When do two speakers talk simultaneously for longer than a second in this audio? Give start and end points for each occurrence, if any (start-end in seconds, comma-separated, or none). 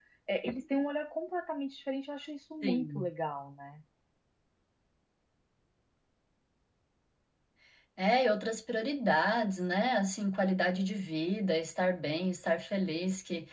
none